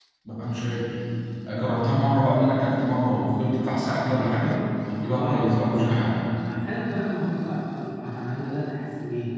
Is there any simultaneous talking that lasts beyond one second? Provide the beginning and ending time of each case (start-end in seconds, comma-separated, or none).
5.0-6.2